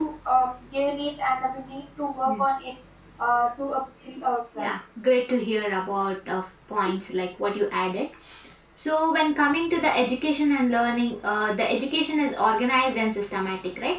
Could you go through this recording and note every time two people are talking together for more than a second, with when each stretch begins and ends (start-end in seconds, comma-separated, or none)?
none